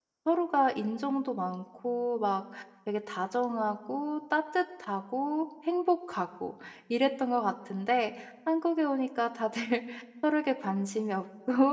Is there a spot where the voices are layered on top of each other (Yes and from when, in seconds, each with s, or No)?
No